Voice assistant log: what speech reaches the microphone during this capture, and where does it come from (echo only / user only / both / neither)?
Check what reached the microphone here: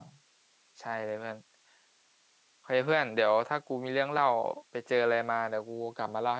user only